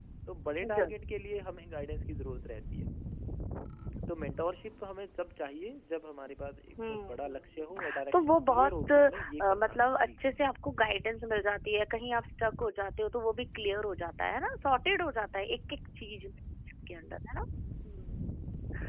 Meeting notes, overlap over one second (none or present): present